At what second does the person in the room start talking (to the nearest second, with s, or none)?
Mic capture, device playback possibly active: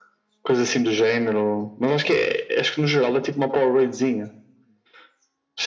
none